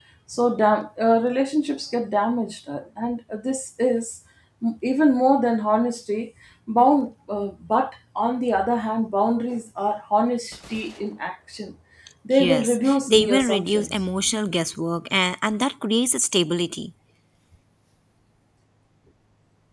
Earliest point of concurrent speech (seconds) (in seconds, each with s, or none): 12.3 s